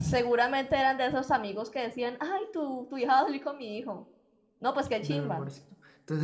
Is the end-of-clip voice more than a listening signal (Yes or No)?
Yes